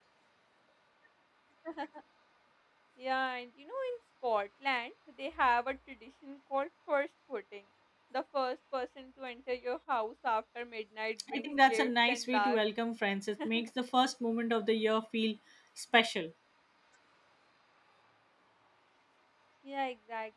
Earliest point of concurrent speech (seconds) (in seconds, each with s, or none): 11.3 s